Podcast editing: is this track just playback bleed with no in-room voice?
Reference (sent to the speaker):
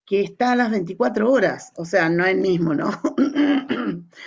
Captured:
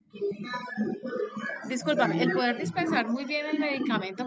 No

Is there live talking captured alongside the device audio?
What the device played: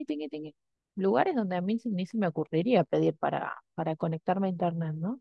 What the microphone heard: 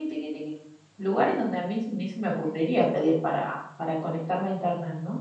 No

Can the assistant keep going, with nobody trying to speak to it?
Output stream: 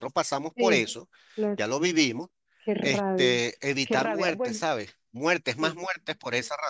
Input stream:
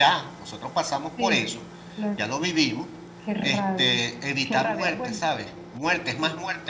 Yes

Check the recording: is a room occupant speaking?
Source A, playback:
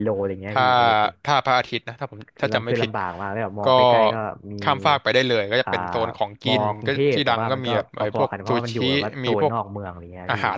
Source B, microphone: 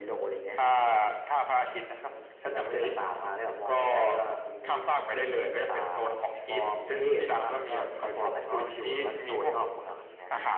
No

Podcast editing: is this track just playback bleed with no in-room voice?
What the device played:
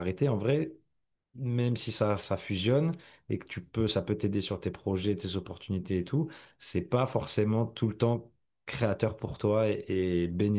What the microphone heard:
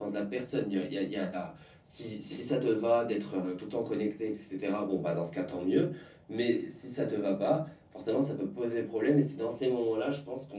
No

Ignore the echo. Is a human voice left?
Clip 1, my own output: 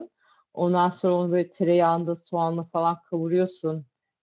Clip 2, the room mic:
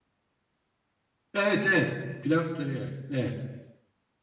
Yes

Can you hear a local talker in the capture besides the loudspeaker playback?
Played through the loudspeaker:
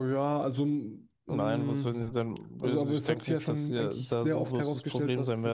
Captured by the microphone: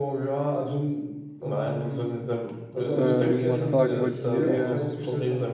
Yes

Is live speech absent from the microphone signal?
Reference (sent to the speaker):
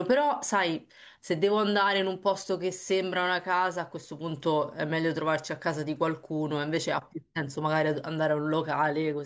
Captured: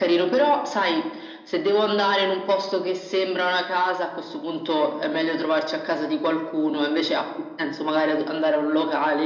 Yes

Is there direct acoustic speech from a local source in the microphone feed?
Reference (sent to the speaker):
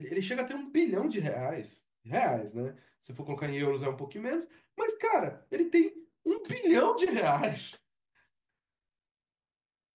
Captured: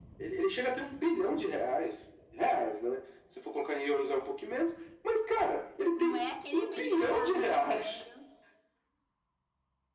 Yes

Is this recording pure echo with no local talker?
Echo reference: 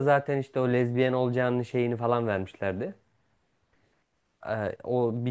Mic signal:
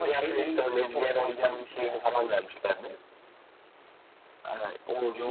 No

